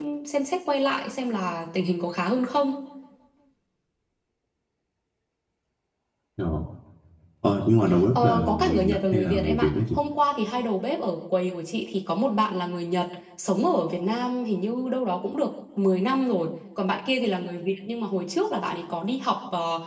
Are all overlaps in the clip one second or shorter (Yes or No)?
No